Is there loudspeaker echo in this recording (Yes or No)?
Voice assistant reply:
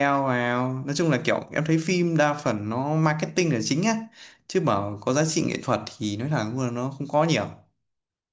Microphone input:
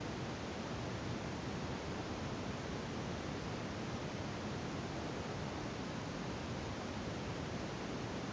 No